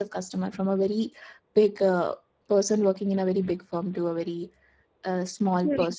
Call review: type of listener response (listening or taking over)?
listening